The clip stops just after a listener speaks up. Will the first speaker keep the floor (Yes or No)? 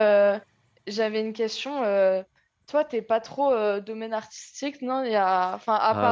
No